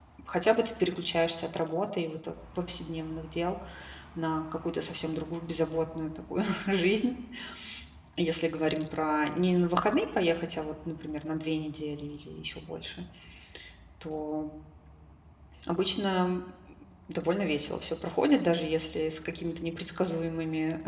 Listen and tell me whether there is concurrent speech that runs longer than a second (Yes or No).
No